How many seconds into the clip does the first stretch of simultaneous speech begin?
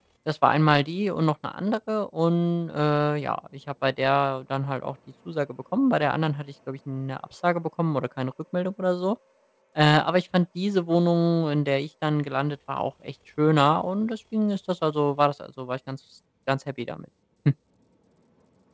none

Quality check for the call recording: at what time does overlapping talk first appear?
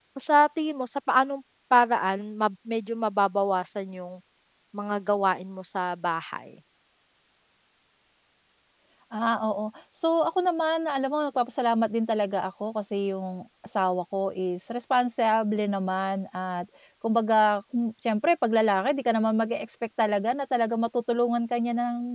none

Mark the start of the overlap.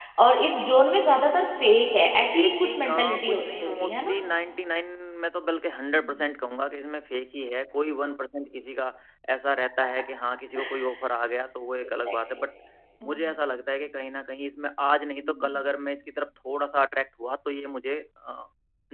2.3 s

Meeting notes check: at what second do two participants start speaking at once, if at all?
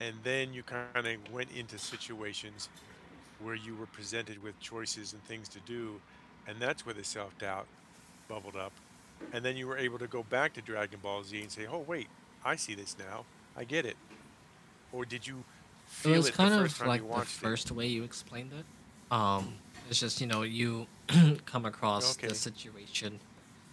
16.0 s

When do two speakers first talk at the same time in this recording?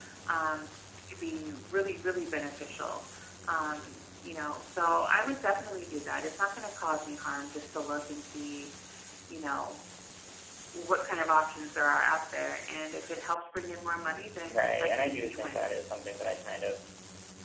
14.5 s

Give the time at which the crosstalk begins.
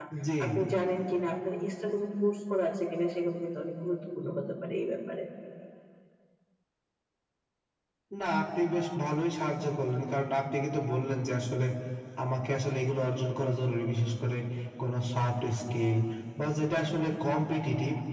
none

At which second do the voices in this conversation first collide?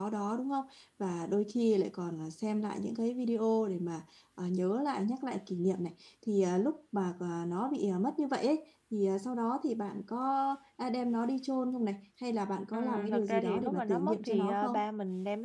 12.7 s

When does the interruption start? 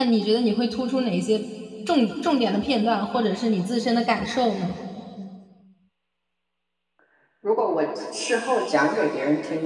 none

